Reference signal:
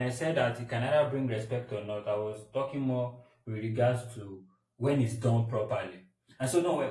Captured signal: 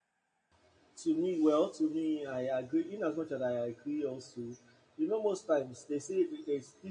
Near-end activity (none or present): present